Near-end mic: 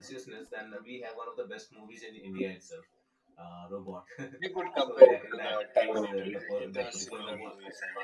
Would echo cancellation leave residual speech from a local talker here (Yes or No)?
Yes